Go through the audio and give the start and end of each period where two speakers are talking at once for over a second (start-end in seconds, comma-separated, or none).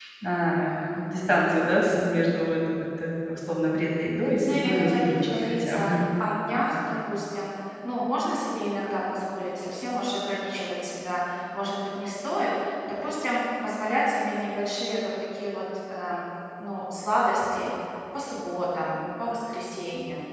4.4-6.0